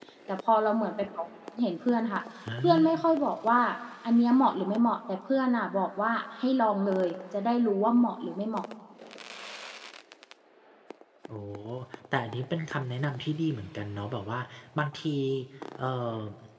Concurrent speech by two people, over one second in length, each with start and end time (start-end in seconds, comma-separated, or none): none